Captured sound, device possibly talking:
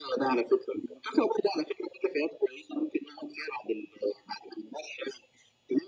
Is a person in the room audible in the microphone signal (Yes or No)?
No